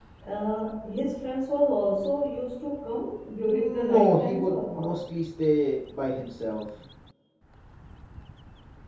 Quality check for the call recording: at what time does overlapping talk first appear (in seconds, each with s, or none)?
3.4 s